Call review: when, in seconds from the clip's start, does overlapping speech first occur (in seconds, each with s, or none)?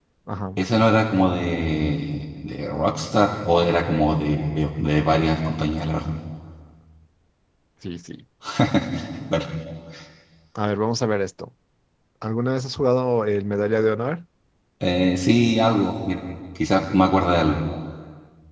none